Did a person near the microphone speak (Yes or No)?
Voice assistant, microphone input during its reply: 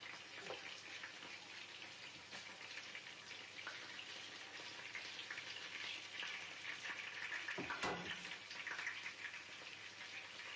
No